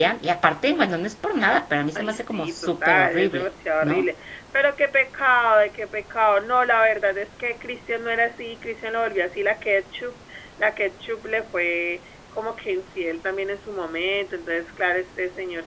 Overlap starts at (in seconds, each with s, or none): 2.0 s